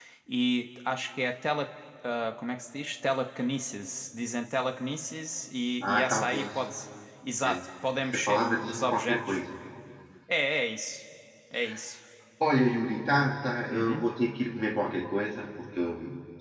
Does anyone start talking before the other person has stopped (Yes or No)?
Yes